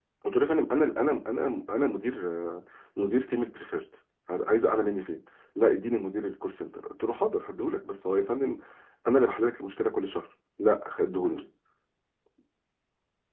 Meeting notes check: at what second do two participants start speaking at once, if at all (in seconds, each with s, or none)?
none